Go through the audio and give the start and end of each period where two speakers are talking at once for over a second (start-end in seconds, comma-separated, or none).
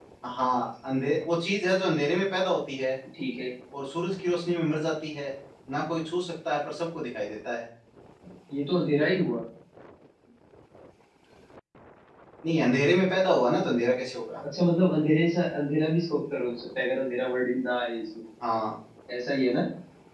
none